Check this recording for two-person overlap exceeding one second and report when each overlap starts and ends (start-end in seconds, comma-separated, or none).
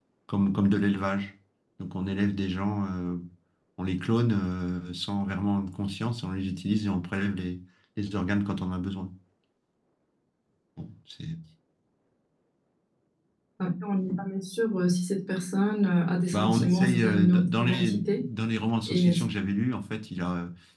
16.3-18.3